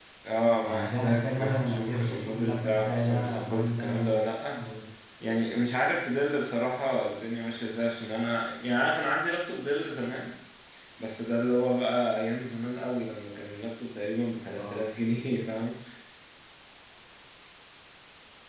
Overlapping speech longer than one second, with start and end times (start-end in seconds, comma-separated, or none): 0.6-4.2